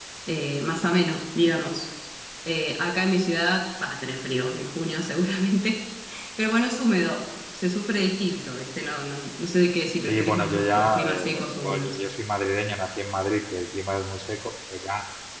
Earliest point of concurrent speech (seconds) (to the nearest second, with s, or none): 10 s